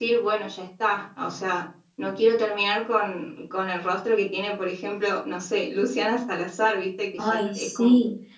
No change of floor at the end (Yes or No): No